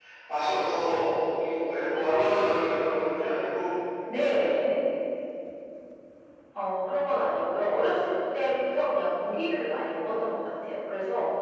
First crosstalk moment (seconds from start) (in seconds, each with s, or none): none